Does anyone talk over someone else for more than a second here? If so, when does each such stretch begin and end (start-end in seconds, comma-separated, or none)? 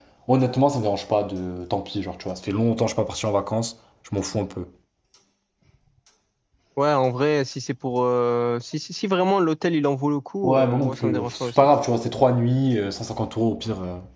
10.4-11.7